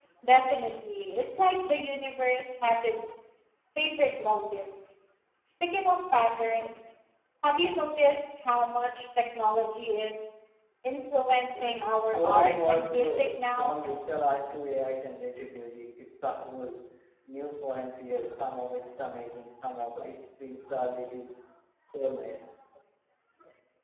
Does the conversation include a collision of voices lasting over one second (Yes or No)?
Yes